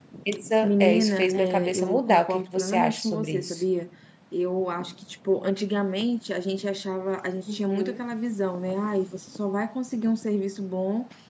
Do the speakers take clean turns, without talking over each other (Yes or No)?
No